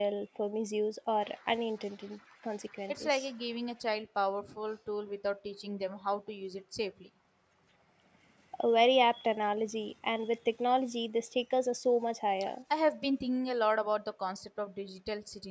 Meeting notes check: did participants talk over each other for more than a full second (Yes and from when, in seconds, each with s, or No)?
No